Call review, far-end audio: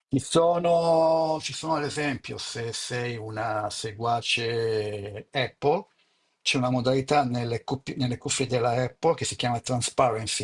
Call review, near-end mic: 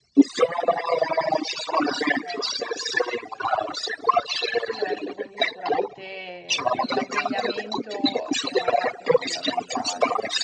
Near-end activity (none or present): present